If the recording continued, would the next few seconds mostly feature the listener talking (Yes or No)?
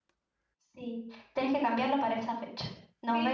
Yes